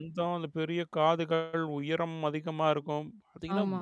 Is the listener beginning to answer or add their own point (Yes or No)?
No